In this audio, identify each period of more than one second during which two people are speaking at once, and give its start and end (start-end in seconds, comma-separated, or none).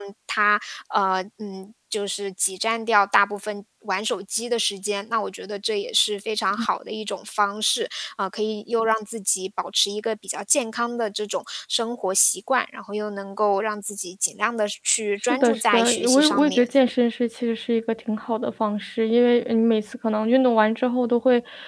15.3-16.6